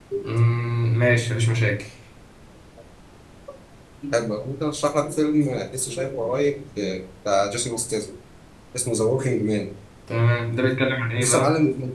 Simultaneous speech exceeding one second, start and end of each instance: none

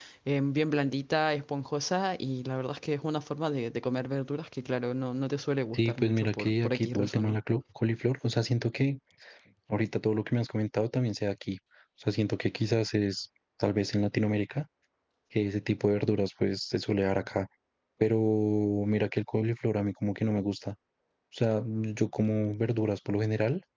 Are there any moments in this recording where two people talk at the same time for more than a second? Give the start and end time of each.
5.7-7.4

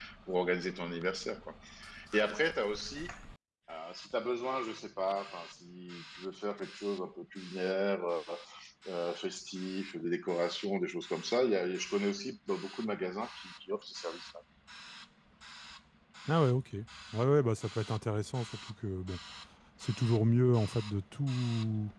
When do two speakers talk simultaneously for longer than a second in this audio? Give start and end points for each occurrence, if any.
none

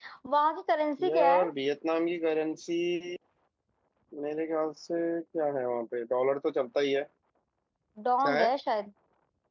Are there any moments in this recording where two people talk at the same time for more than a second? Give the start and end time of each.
none

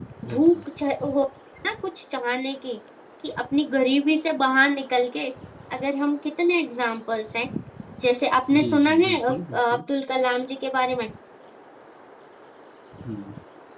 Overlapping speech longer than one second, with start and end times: 8.5-9.8

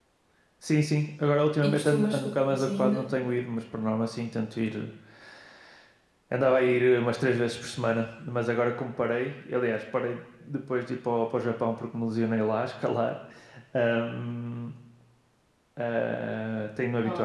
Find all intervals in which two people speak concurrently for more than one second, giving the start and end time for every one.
1.6-3.0

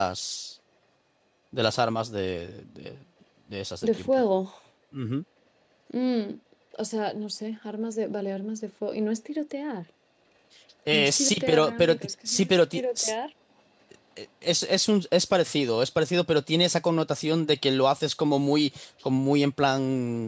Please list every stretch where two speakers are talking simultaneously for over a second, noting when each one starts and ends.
10.9-13.1

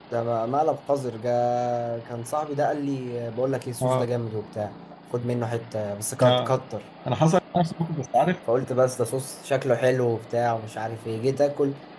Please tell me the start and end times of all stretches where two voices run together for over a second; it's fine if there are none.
none

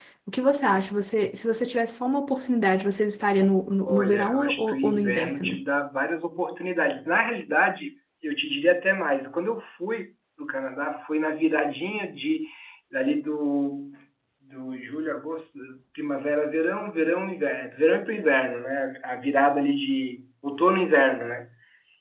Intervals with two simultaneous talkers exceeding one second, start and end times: 3.9-5.6

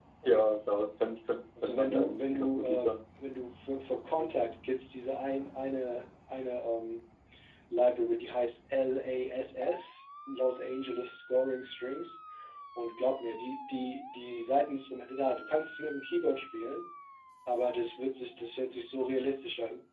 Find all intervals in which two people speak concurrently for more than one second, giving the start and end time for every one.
1.6-2.9

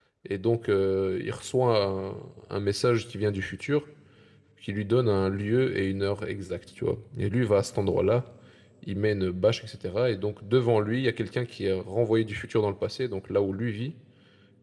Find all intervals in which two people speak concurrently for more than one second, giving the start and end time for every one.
none

